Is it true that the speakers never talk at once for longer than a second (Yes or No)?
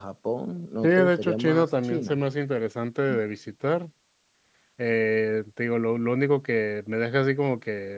No